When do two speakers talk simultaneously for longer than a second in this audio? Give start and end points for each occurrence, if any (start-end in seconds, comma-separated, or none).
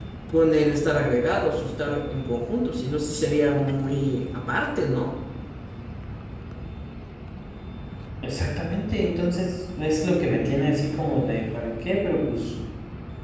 none